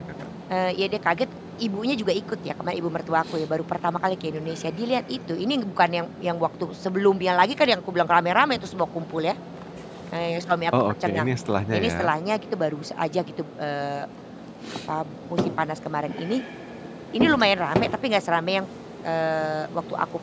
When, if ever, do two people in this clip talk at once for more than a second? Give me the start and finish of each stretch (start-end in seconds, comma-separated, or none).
none